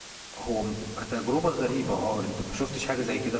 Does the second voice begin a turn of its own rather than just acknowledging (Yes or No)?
Yes